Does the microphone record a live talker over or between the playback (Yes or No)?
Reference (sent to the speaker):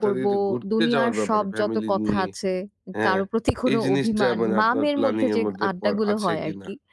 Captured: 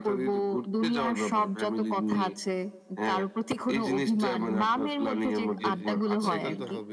Yes